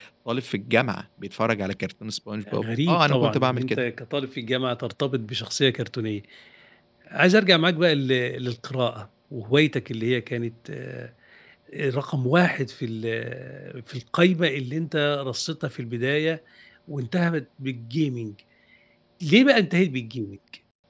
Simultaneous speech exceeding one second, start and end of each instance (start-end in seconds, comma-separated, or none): 2.5-3.9